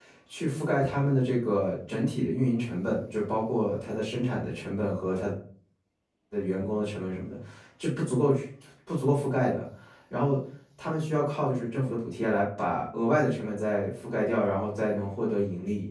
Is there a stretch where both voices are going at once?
No

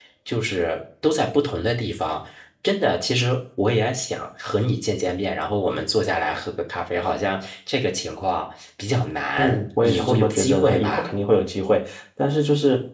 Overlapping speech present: Yes, from 9.4 s

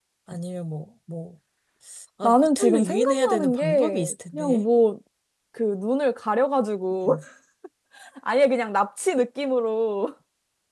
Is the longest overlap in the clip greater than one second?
Yes, from 2.2 s

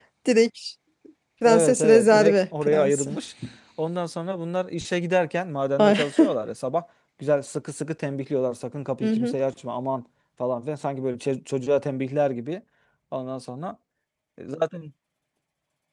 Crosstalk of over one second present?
Yes, from 1.4 s

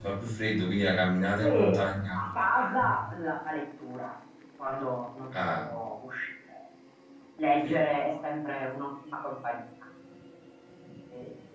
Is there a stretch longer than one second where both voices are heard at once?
No

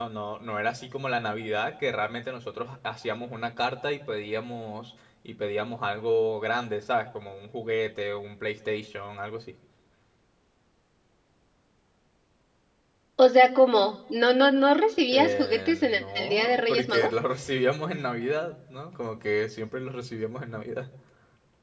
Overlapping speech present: Yes, from 15.1 s

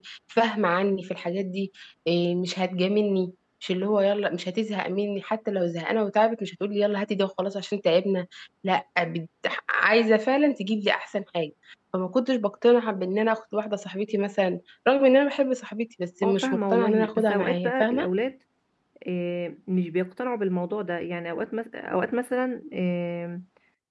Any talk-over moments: Yes, from 16.2 s

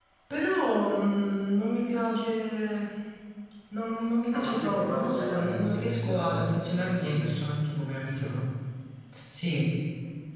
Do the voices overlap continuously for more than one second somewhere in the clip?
Yes, from 4.3 s

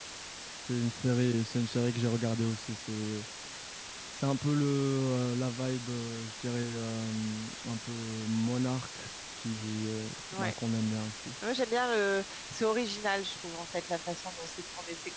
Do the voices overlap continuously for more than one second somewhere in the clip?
No

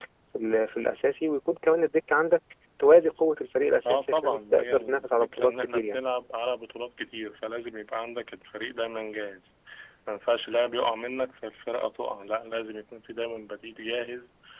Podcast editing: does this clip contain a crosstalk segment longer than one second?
Yes, from 3.8 s

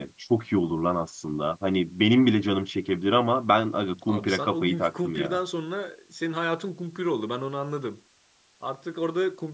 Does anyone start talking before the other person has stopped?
Yes, from 4.1 s

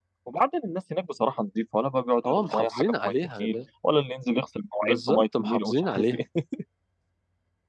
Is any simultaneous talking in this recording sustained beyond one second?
Yes, from 2.2 s

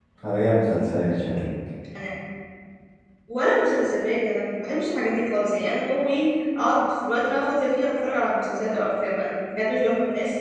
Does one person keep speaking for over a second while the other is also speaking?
No

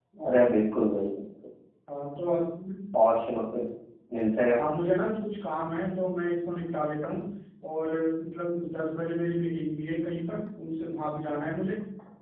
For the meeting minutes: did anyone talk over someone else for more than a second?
No

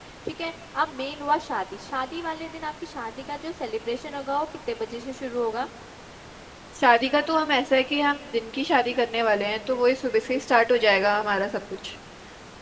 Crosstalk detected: No

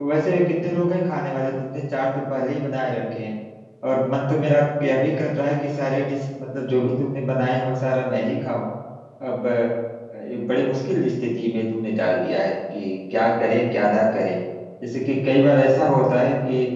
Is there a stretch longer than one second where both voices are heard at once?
No

